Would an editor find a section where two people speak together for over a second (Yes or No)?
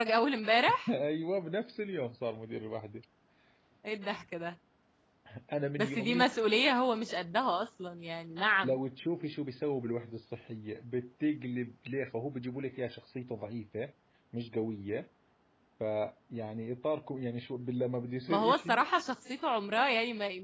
No